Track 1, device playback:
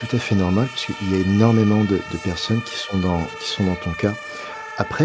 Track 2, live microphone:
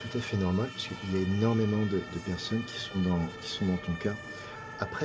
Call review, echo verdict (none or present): present